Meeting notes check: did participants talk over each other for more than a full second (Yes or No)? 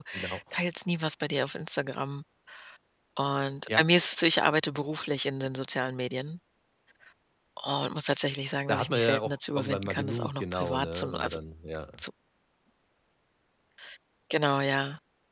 Yes